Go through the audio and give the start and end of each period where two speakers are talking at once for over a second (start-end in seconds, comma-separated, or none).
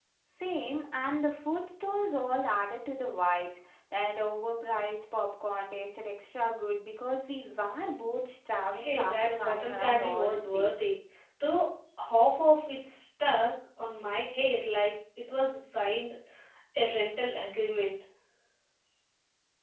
8.7-10.8